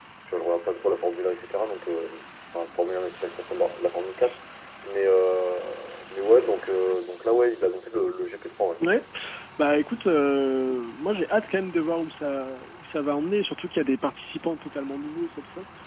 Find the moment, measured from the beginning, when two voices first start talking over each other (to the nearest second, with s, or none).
none